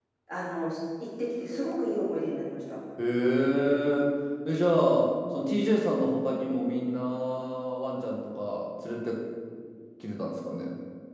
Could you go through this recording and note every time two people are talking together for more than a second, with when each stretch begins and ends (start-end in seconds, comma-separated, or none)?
none